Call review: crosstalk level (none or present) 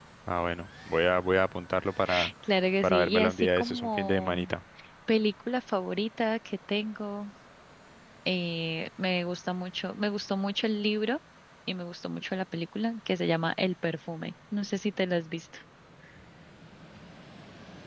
present